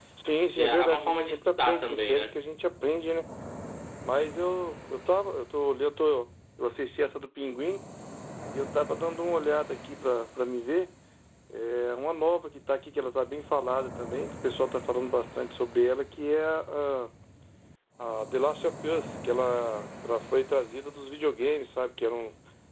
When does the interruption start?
0.5 s

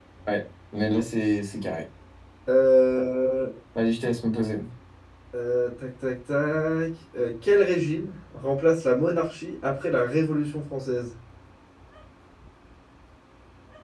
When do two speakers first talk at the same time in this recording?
none

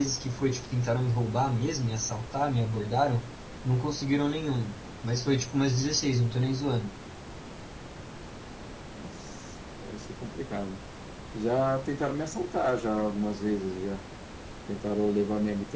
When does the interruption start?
none

